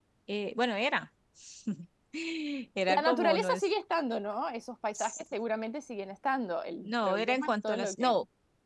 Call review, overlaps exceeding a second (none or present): present